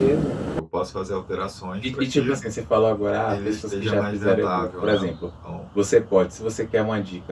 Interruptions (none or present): present